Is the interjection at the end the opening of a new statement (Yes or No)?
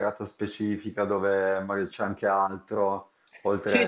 Yes